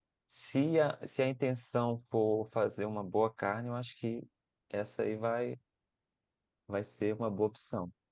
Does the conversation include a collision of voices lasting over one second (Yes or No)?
No